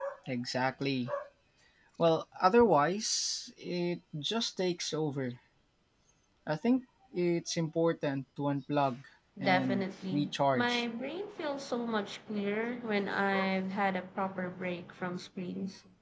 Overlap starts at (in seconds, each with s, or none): 9.4 s